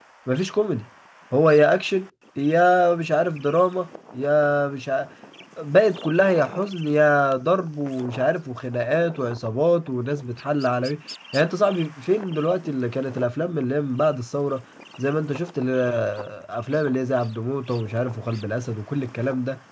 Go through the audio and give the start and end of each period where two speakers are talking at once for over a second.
none

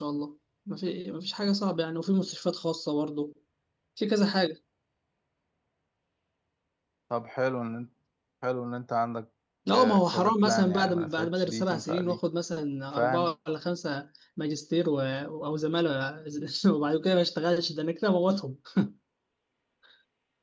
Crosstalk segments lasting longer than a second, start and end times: 9.7-12.2

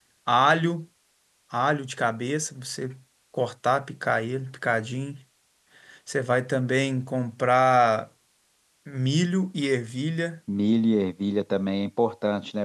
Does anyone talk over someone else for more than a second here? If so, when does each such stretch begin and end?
none

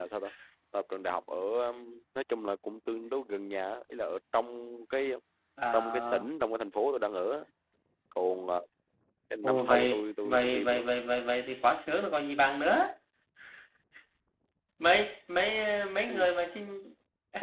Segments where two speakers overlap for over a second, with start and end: 9.4-10.9

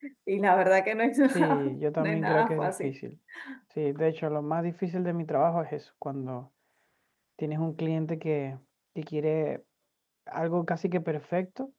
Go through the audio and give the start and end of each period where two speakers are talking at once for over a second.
1.3-2.9

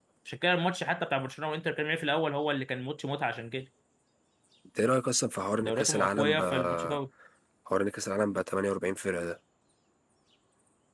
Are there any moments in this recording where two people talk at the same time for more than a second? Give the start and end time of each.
5.6-7.0

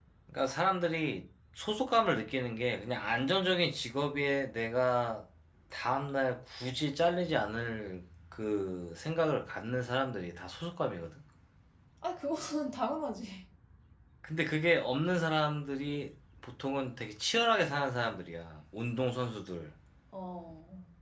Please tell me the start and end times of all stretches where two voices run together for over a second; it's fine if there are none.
none

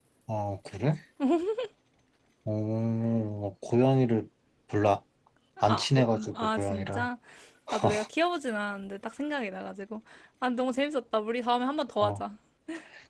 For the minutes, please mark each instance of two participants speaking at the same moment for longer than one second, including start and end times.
5.6-7.1

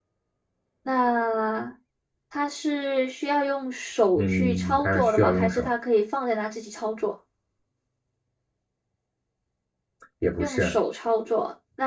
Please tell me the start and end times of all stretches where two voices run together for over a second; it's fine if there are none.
4.2-5.7

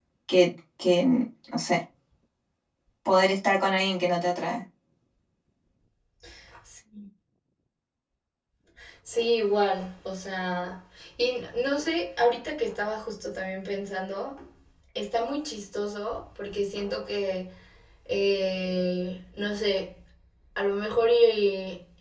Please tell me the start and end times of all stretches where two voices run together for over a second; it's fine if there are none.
none

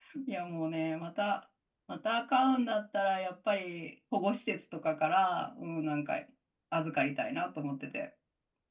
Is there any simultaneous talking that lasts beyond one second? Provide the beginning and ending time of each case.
none

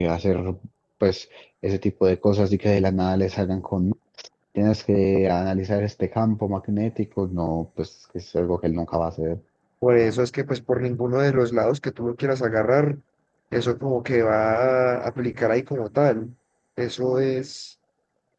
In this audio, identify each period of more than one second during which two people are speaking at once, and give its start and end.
none

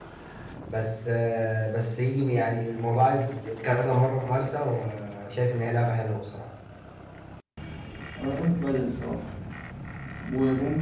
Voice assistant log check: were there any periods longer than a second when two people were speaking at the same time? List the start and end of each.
none

